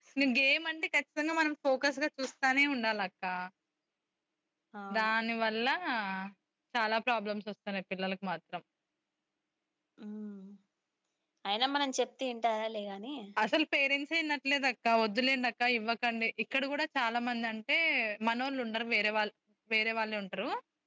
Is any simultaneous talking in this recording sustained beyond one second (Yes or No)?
No